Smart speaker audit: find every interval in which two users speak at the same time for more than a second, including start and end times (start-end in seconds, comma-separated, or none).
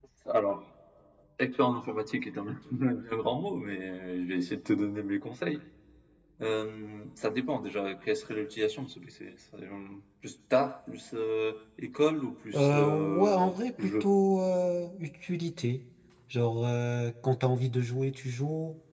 12.5-14.1